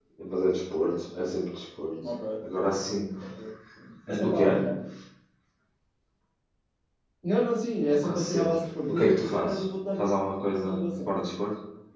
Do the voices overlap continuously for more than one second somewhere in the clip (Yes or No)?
Yes